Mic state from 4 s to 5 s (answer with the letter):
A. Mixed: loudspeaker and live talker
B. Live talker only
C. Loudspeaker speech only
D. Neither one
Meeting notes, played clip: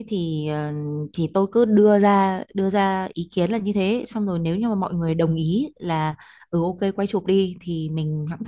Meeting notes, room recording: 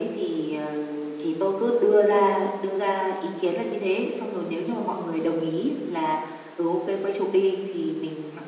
C